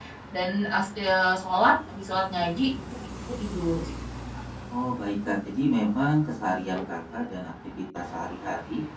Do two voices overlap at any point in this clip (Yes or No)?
No